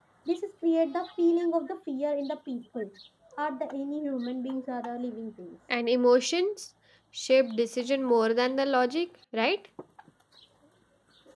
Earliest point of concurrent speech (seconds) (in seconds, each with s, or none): none